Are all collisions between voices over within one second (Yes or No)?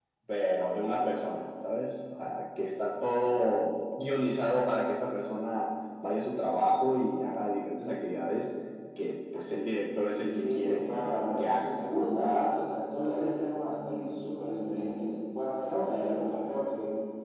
No